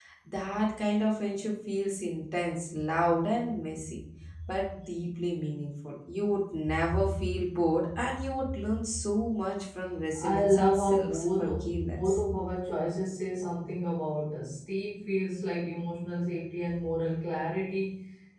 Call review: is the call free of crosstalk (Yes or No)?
No